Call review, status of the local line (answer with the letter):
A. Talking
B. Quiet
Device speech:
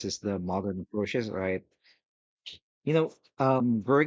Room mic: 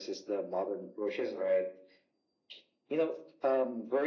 B